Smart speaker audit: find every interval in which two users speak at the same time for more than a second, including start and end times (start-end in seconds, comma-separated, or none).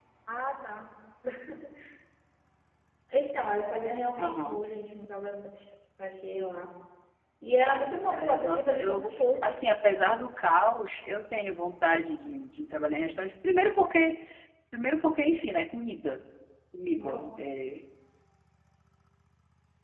7.7-9.0